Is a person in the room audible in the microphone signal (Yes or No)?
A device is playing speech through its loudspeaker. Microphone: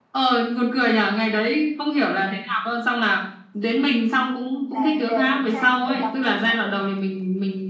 Yes